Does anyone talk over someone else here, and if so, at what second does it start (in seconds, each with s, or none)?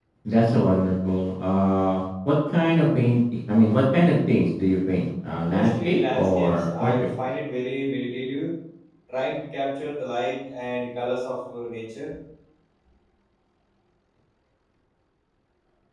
5.4 s